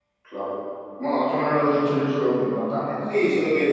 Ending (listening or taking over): taking over